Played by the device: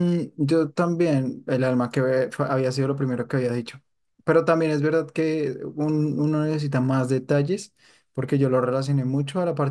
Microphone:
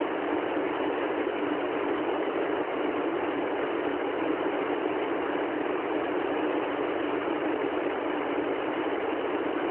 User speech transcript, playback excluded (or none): none